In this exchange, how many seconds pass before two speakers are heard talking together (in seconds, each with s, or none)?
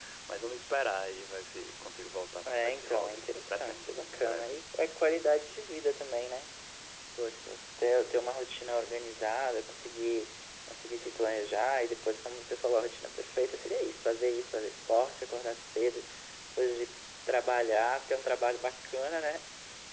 2.4 s